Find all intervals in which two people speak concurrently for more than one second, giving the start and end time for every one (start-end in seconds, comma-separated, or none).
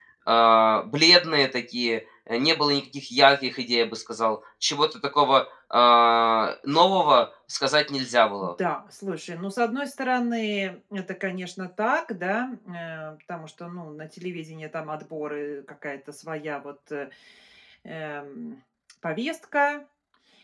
none